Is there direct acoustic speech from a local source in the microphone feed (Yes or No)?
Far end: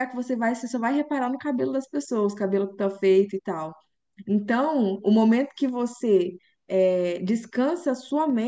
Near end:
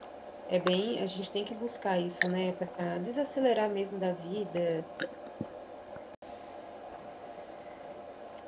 Yes